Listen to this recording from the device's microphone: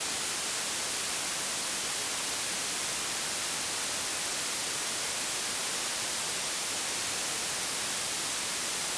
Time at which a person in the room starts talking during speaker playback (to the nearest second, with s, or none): none